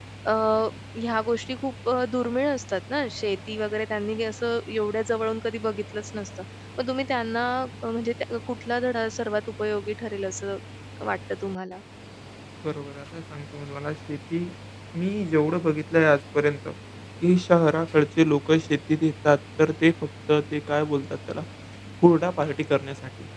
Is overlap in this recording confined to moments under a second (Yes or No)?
Yes